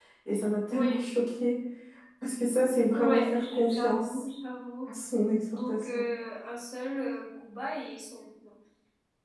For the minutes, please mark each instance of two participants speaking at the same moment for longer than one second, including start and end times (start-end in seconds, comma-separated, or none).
2.9-4.2